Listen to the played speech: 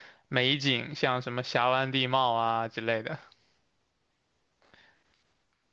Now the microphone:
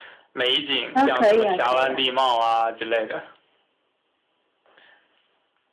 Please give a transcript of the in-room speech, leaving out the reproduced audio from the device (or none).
啊，可以啊，可以啊，